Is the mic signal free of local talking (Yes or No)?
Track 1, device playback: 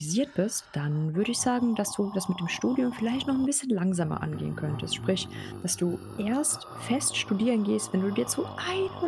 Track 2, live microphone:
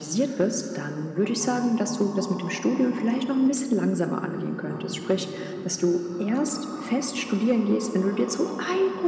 Yes